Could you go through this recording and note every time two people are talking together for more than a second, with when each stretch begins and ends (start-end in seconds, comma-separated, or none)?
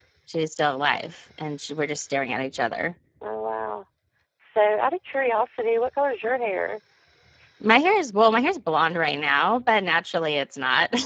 none